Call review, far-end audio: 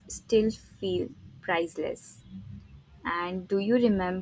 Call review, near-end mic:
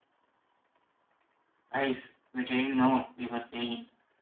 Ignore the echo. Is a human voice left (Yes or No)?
Yes